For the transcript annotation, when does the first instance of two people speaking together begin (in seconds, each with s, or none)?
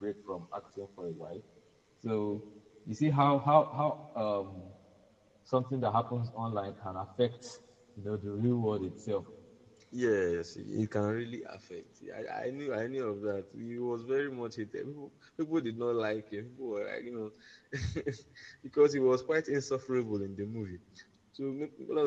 none